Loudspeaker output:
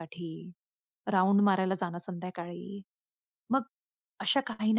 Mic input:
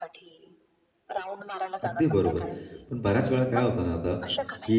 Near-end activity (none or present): present